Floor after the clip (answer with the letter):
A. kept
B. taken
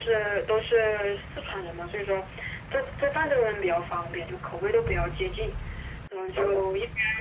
A